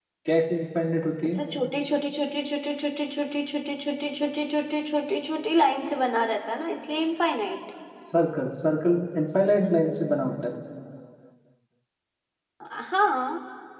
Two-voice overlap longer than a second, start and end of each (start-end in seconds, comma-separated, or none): none